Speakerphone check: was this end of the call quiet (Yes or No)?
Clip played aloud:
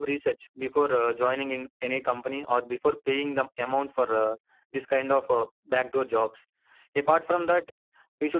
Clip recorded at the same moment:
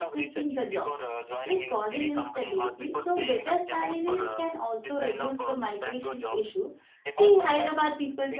No